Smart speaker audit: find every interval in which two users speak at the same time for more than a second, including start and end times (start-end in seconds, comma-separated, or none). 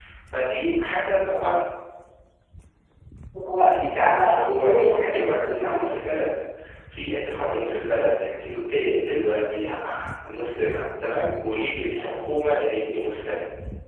3.8-6.0